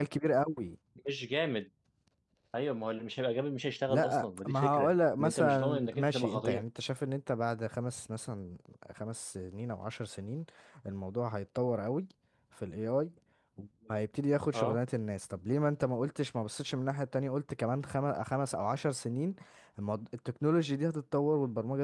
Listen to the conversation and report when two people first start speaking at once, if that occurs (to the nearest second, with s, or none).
4 s